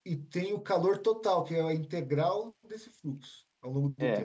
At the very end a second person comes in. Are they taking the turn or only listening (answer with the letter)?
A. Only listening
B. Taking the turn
B